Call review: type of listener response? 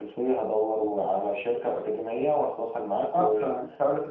taking over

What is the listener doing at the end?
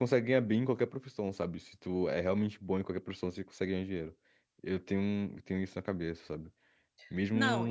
taking over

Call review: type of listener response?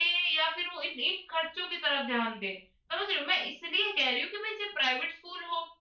listening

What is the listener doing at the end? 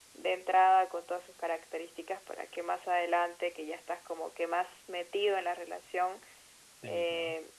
listening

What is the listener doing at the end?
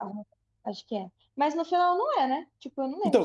taking over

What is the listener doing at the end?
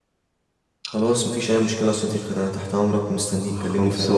taking over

